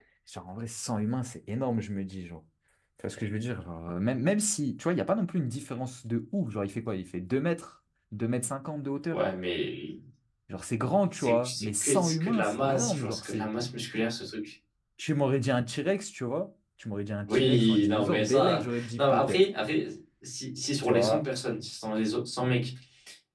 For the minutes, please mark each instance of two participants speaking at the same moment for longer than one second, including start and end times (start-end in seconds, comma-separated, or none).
11.2-13.5, 17.3-19.4